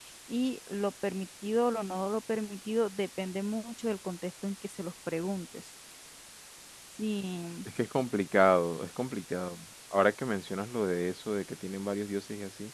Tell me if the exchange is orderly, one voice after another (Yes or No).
Yes